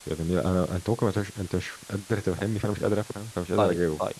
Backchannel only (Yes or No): No